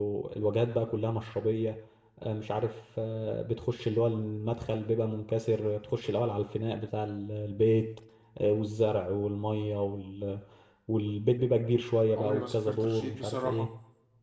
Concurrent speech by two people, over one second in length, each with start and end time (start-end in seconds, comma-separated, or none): 12.2-13.7